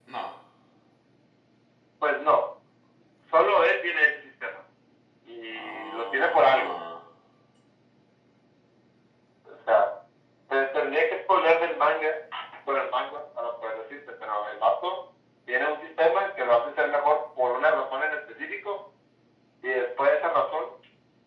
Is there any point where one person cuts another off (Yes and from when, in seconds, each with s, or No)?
Yes, from 5.5 s